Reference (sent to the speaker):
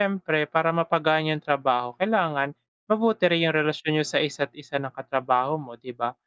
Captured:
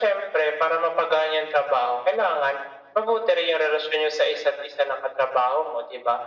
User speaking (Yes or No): No